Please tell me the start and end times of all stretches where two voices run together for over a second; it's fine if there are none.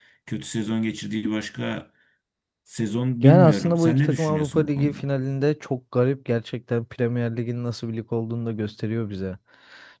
3.2-5.1

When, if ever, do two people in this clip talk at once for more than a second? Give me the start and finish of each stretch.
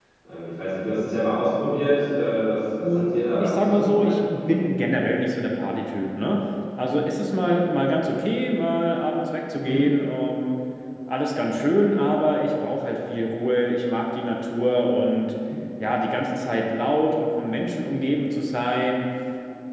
2.8-4.3

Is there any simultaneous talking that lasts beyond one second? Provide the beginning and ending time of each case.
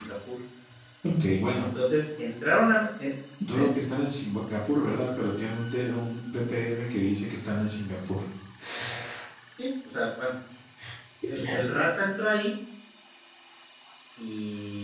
none

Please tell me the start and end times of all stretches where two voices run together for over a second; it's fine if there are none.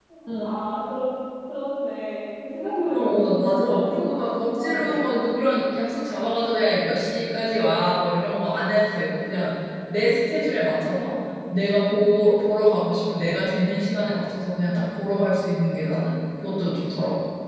2.9-5.0

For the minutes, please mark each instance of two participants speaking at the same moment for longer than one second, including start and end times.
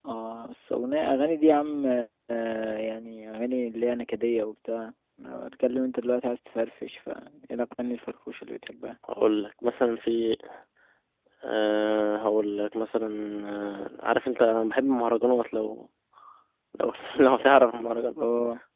none

